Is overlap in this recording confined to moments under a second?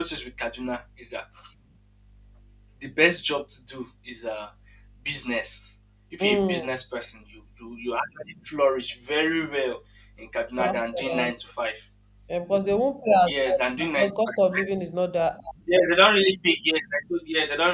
No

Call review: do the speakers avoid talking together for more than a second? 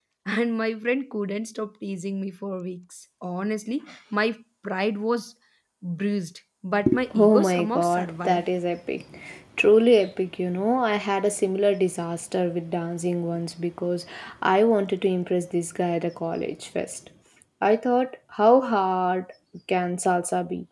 No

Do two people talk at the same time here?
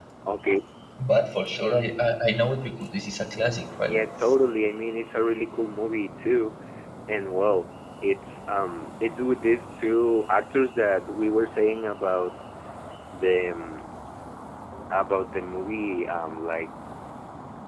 No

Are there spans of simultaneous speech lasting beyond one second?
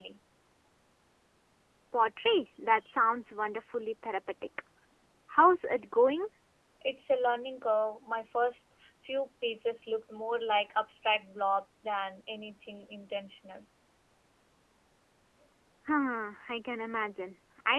No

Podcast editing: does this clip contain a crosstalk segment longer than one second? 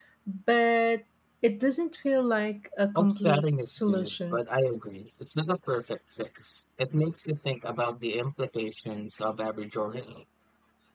Yes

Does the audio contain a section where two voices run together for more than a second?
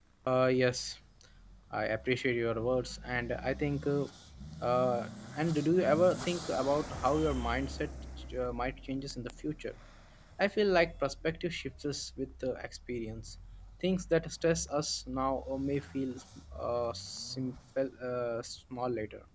No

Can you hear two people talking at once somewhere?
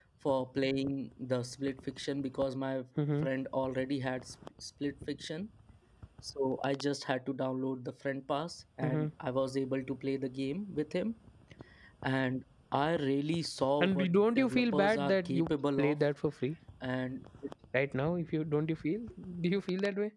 Yes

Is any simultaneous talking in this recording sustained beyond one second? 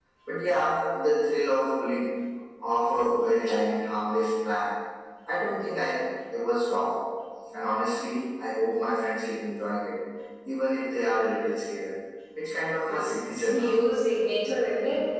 No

